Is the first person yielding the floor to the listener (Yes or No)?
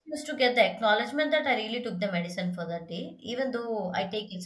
No